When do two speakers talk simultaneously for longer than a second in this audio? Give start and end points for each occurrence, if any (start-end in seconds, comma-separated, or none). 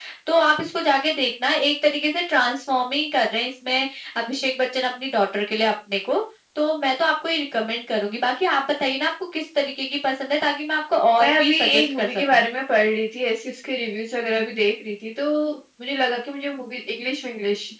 11.2-12.4